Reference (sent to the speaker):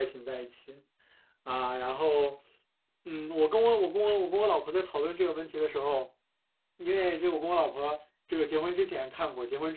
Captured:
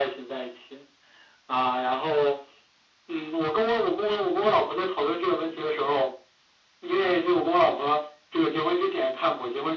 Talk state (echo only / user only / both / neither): echo only